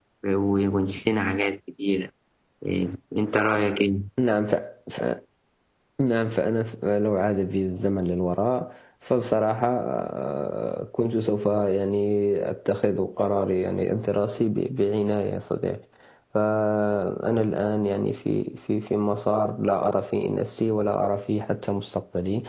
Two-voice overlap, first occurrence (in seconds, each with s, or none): none